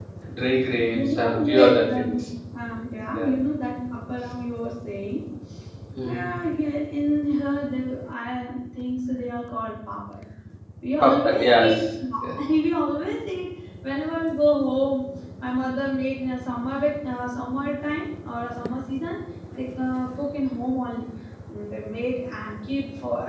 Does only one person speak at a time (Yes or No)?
No